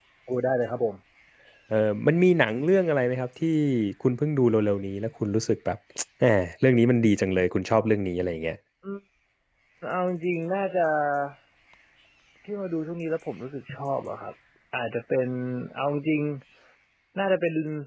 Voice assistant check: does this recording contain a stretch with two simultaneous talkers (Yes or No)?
No